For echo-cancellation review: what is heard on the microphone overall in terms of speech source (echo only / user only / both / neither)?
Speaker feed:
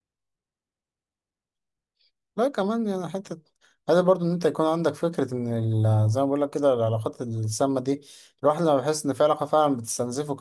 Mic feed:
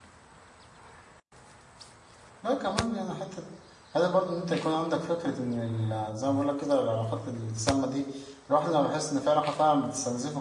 echo only